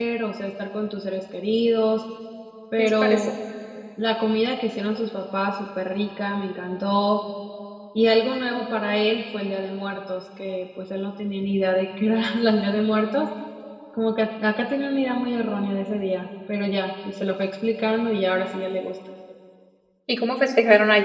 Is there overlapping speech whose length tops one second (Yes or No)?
No